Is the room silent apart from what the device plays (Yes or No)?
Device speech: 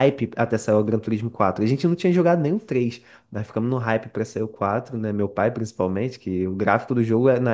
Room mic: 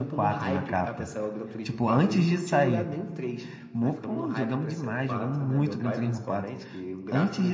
No